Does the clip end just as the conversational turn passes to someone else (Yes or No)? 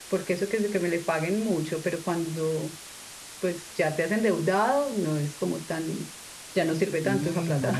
Yes